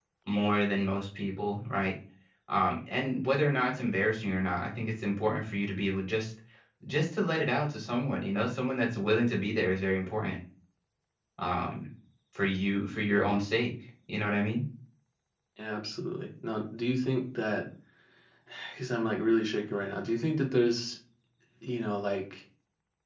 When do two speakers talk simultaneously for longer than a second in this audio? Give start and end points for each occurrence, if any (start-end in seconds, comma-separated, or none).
none